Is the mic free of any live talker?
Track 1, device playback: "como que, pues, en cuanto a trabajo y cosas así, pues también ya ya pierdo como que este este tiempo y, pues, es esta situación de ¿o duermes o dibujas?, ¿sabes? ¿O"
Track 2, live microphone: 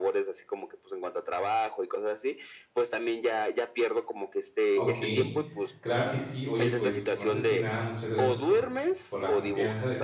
No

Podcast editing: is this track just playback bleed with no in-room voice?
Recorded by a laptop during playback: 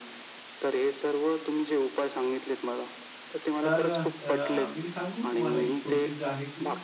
No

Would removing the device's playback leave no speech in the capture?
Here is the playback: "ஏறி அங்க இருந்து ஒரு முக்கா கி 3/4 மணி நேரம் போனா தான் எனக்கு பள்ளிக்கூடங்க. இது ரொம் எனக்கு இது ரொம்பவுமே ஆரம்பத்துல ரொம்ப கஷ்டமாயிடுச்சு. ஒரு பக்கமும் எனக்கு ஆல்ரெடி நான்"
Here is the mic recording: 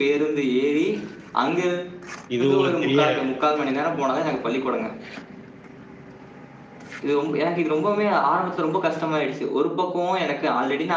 No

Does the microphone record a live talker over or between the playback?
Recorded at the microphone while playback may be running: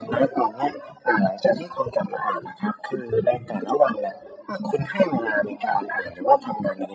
No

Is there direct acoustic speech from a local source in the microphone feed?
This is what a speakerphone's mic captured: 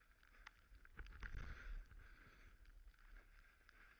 No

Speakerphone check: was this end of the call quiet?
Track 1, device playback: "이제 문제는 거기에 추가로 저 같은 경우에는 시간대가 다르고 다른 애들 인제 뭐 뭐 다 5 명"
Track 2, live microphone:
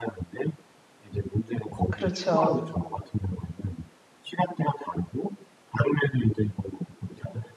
No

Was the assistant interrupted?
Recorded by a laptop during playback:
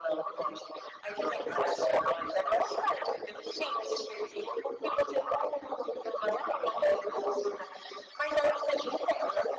No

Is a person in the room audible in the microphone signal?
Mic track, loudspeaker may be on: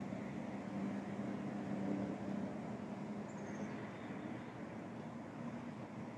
No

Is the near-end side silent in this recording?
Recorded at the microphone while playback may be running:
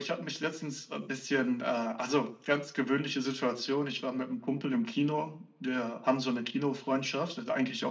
Yes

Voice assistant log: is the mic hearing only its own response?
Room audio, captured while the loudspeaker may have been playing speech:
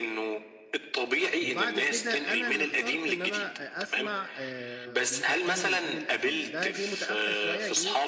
No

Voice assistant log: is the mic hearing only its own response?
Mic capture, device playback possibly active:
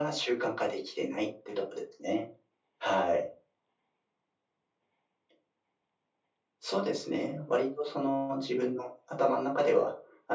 Yes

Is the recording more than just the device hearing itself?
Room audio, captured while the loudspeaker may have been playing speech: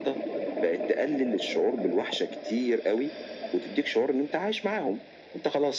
No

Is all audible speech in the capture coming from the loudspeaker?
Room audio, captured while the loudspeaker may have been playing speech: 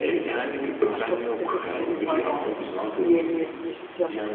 No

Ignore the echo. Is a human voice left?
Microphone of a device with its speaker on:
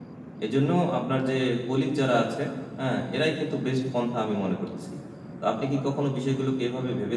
Yes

